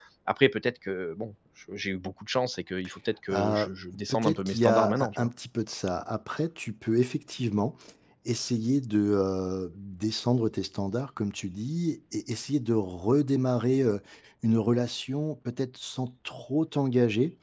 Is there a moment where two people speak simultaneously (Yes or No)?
Yes